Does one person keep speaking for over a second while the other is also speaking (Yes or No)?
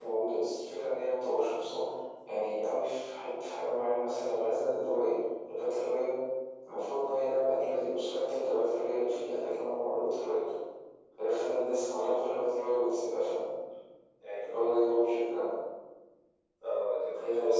No